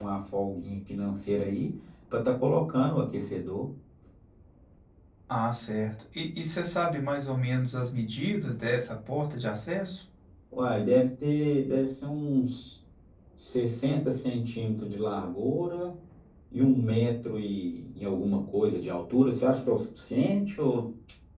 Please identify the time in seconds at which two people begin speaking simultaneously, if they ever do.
none

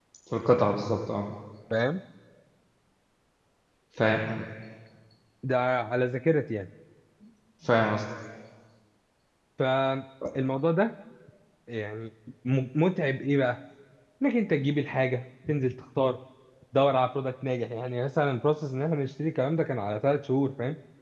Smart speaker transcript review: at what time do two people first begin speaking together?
none

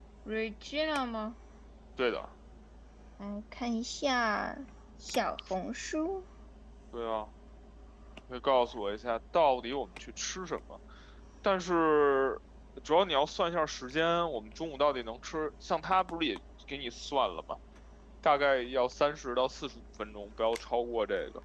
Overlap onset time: none

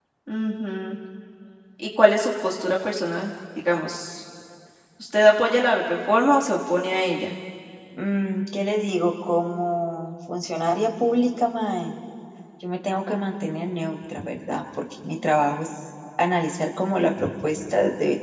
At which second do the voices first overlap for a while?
none

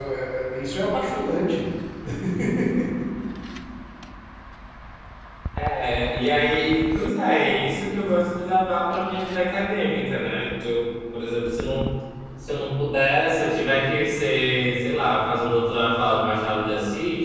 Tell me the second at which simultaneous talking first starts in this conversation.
none

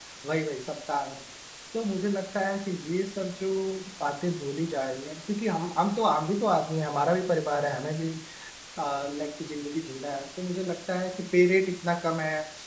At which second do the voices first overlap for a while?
none

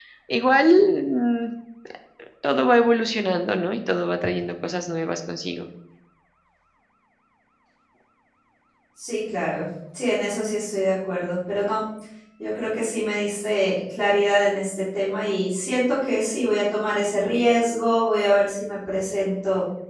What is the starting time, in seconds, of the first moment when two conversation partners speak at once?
none

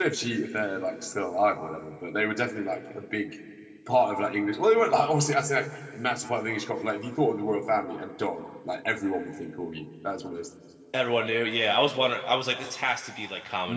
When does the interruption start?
none

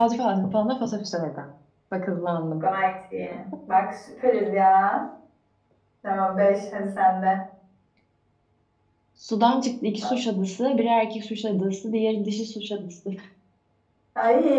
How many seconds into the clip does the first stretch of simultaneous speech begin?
none

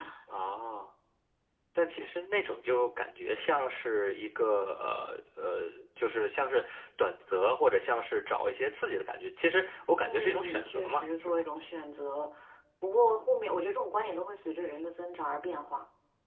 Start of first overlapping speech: 10.0 s

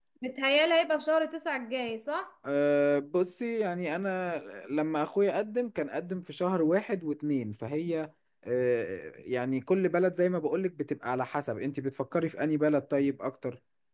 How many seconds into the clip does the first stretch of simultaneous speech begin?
none

